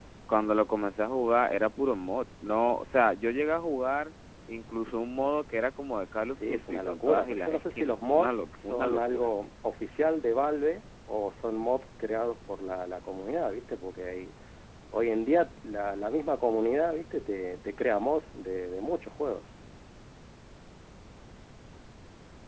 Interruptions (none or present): present